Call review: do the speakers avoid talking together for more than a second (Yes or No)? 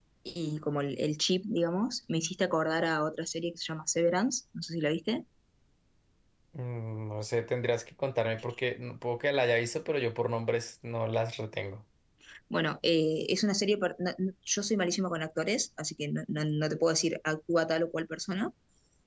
Yes